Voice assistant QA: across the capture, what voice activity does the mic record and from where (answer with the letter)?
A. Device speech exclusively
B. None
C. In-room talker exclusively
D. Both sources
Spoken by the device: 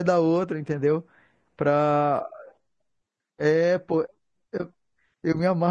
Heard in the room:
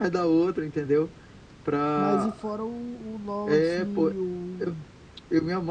D